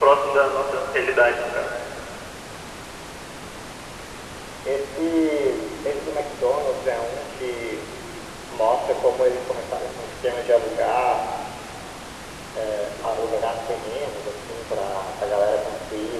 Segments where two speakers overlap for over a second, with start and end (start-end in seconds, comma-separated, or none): none